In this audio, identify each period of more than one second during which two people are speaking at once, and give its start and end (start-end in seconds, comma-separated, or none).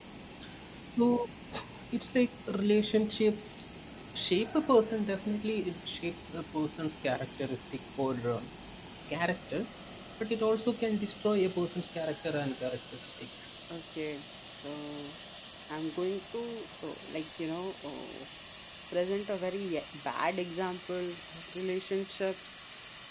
none